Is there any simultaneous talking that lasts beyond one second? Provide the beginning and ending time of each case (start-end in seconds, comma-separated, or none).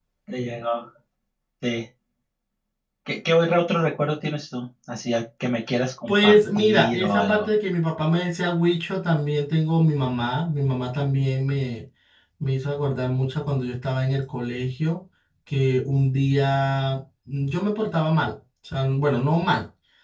6.1-7.5